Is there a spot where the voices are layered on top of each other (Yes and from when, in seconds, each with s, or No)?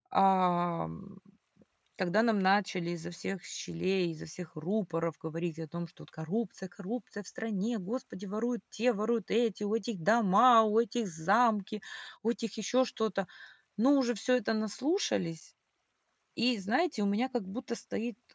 No